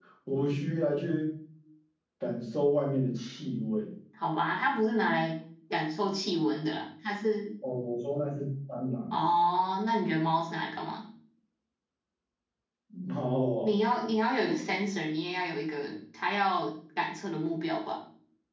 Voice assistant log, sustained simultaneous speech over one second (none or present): none